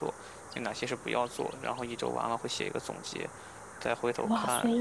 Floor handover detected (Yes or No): Yes